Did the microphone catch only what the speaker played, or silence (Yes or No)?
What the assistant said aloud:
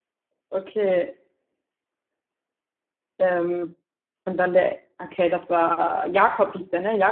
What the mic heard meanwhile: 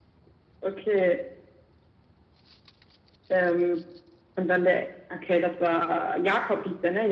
Yes